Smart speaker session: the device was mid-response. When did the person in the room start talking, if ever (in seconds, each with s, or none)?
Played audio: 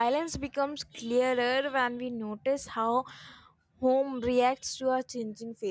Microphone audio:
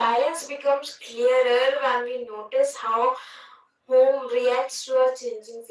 none